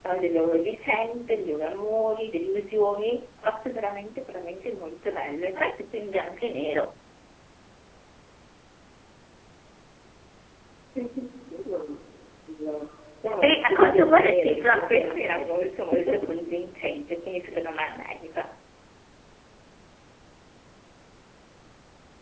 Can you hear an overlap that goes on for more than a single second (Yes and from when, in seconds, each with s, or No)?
Yes, from 13.4 s